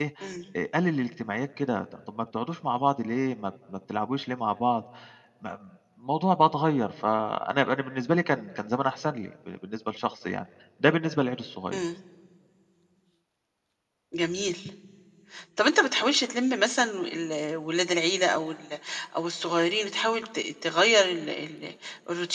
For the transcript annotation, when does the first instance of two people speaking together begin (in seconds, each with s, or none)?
none